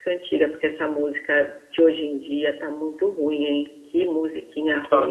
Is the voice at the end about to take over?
No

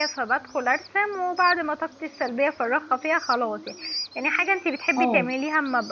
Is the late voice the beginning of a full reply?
No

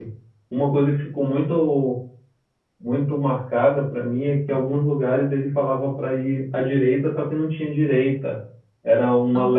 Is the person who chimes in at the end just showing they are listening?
Yes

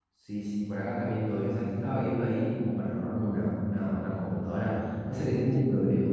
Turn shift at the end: No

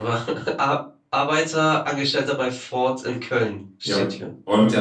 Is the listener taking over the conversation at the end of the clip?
Yes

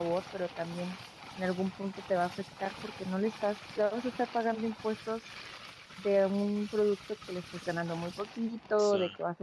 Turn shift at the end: No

